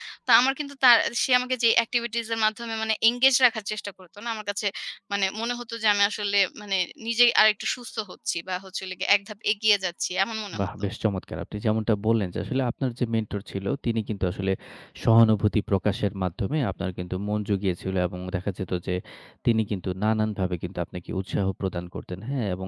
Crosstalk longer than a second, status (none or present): none